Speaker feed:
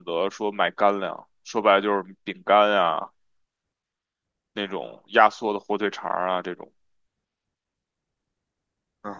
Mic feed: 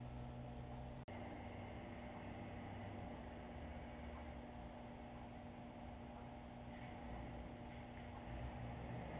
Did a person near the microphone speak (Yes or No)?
No